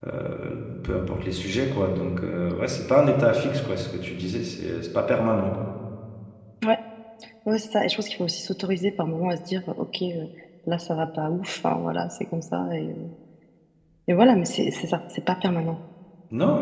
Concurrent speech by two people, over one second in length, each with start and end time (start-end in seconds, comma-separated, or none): none